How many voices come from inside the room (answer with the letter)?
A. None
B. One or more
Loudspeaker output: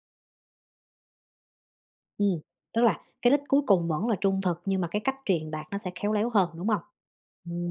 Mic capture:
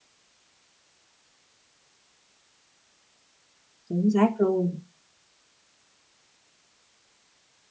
B